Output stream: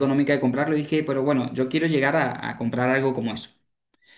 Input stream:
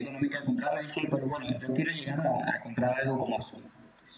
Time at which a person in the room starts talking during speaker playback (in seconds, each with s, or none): none